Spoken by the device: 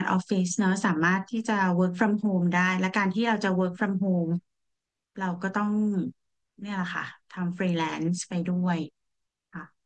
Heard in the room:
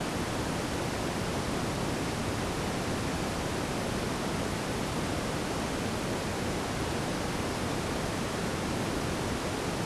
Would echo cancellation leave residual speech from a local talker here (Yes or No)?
No